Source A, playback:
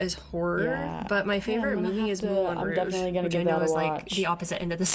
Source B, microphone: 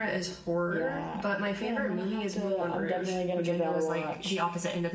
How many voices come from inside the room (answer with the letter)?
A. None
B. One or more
A